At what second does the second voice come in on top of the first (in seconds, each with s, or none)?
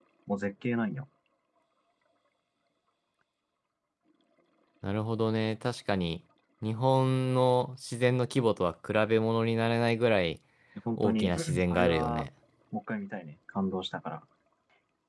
11.0 s